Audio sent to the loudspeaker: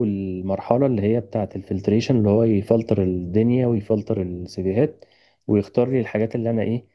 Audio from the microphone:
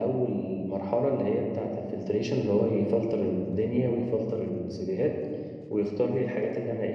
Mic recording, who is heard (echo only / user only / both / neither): echo only